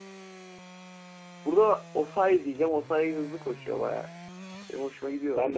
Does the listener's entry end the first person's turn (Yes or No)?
Yes